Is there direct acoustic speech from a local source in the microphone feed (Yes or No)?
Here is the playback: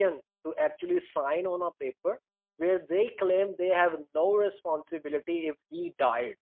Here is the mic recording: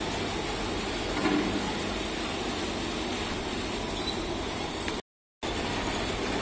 No